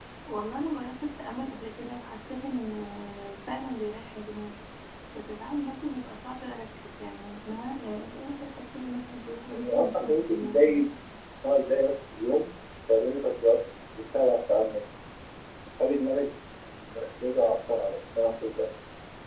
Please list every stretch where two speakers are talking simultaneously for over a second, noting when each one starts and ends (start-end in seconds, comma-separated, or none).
9.5-10.8